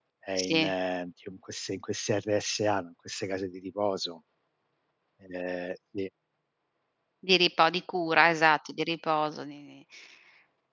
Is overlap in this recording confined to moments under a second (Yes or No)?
Yes